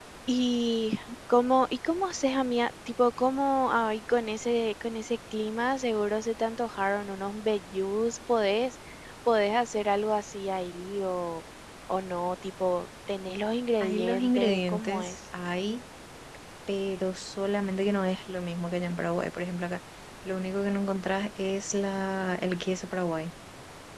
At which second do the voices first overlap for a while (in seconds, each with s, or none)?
13.8 s